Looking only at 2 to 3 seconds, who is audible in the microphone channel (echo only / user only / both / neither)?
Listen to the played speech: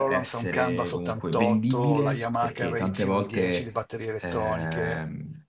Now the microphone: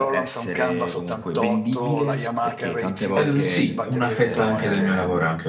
echo only